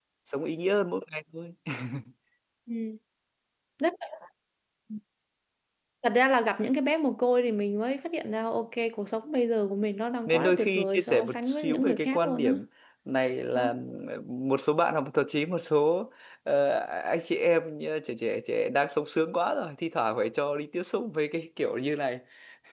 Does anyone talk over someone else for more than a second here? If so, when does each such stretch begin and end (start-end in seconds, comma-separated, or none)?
10.3-12.6